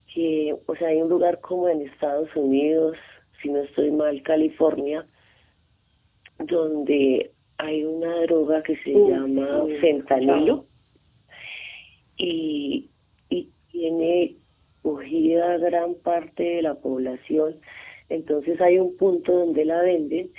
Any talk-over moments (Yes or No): Yes